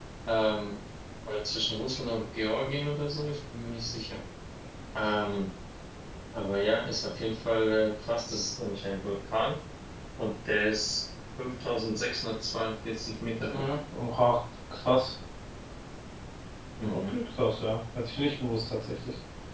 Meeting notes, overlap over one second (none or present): none